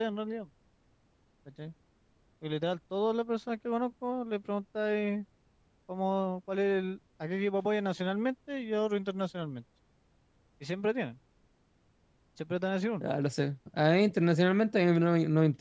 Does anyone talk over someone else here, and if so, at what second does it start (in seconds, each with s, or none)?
none